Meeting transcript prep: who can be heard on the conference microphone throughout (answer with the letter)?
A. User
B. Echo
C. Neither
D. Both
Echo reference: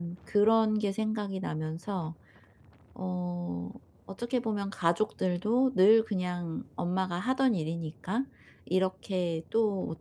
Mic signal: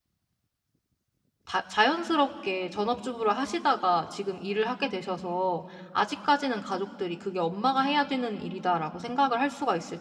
A